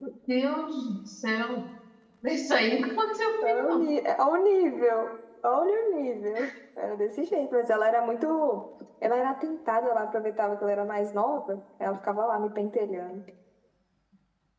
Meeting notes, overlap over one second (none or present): none